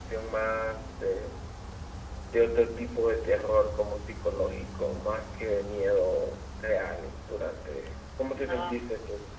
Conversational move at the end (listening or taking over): taking over